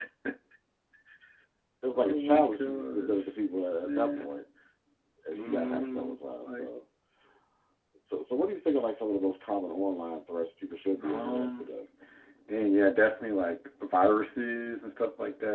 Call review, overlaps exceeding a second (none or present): present